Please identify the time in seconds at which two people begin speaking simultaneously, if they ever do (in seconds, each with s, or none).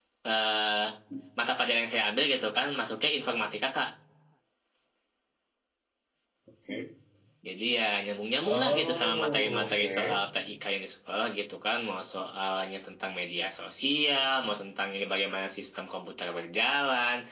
8.5 s